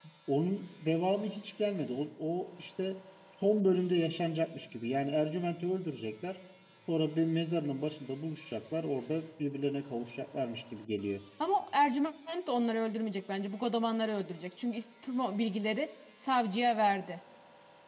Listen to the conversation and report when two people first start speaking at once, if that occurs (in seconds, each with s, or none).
none